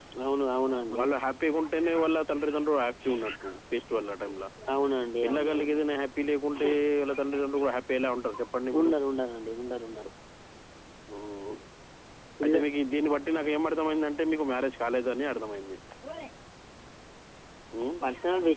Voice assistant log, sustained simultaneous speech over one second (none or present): none